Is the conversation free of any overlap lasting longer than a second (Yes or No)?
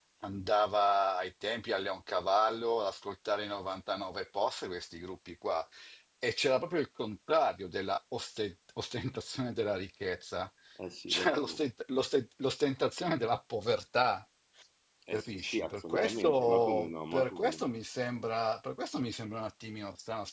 No